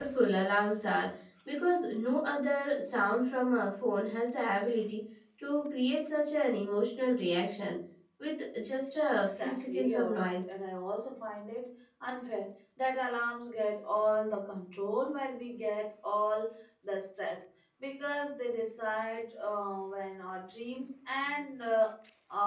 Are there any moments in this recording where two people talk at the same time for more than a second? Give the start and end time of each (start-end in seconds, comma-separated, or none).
9.3-10.5